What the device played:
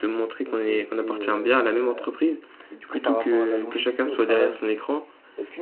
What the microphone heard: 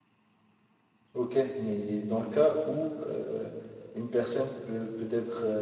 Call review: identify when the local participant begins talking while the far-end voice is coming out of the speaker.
1.1 s

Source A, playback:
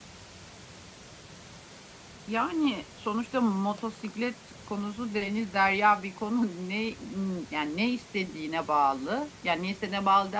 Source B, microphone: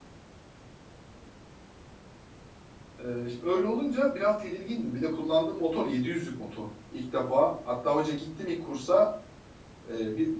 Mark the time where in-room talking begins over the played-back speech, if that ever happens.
3.0 s

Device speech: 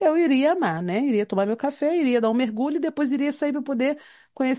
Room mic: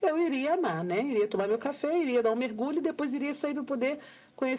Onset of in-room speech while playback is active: none

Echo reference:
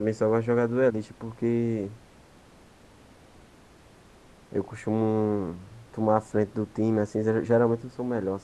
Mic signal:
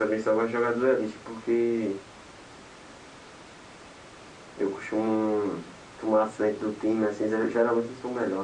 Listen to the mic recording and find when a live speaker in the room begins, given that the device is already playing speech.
none

